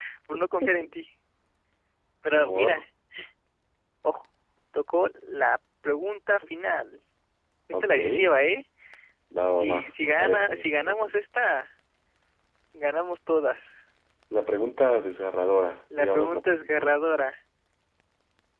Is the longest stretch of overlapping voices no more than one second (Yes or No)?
No